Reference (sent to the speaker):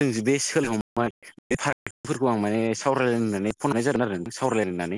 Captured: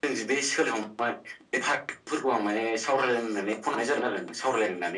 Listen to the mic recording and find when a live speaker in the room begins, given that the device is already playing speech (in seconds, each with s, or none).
none